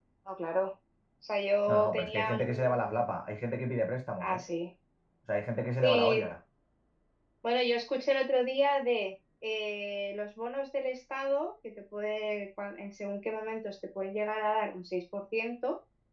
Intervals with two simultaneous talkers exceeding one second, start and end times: 1.7-3.0

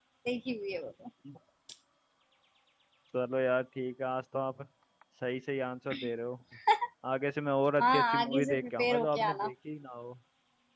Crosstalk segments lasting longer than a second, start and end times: 7.8-9.5

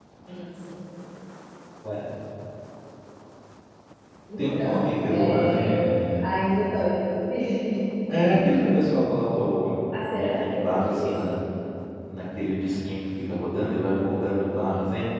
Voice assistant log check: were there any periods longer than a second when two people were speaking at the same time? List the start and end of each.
4.4-5.8, 9.9-11.2

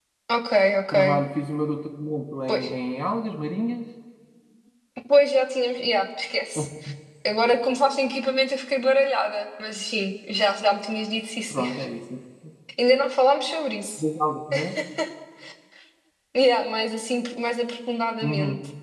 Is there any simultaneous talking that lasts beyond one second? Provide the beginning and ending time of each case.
none

